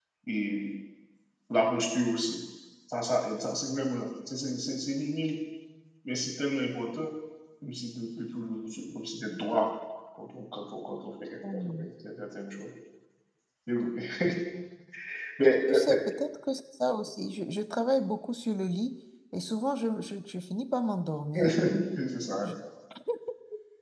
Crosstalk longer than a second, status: none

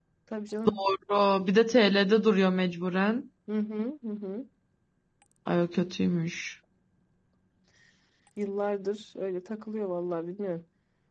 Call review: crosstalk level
none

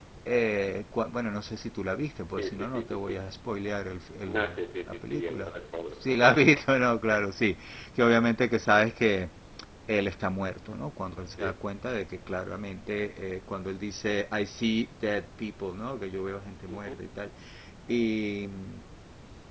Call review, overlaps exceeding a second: present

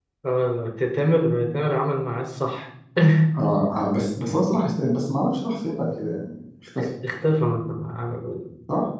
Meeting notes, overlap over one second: none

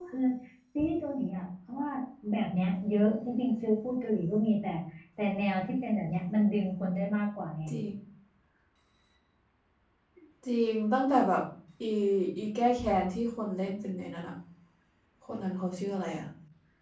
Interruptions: none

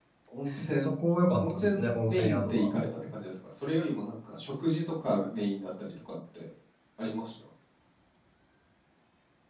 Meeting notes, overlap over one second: present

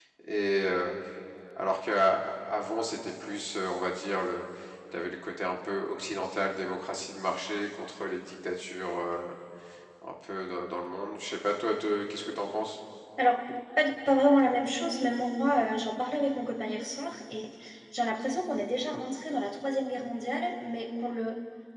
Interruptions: none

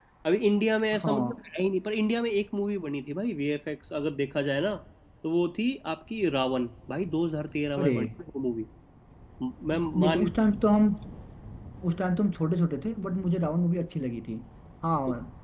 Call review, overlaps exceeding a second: none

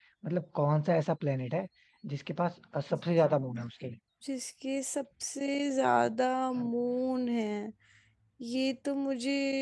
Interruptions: none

